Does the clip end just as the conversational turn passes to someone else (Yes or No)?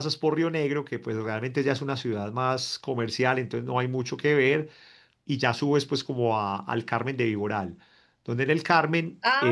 Yes